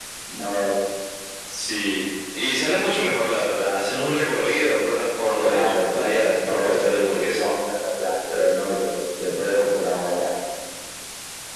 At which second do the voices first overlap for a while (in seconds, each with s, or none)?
5.4 s